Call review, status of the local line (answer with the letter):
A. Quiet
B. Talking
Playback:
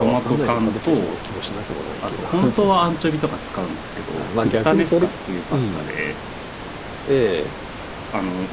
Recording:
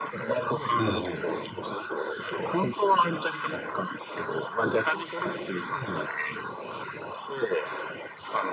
B